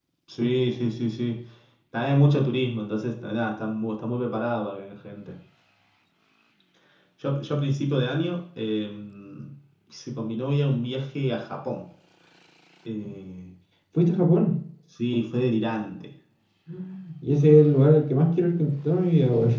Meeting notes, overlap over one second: none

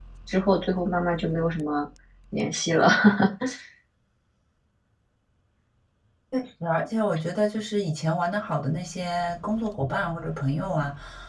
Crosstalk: none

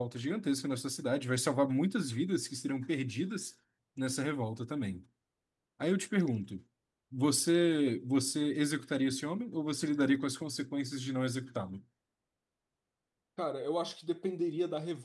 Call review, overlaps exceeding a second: none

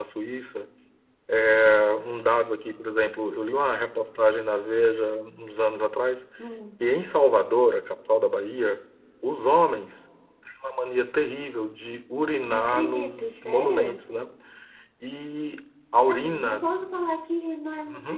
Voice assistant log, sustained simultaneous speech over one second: present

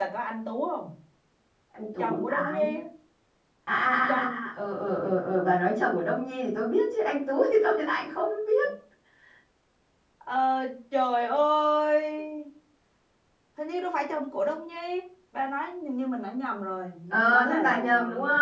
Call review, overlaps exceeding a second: present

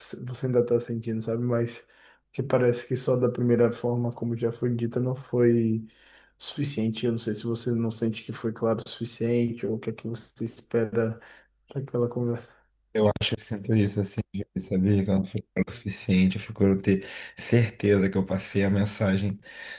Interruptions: none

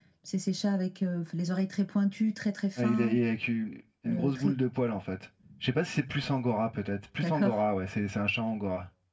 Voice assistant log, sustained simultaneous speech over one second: none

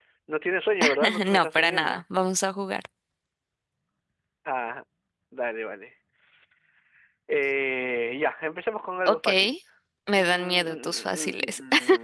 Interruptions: present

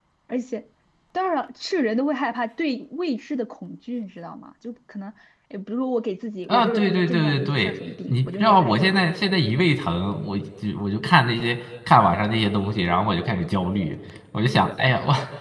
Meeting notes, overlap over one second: present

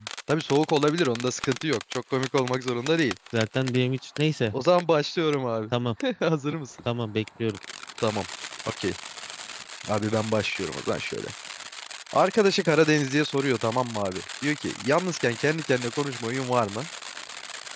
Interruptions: none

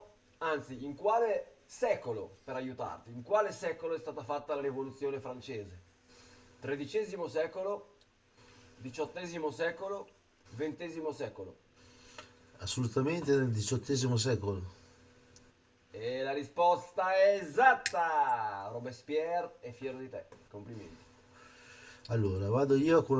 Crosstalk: none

